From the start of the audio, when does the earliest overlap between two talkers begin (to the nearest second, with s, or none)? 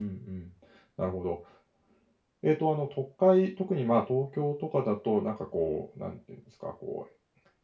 none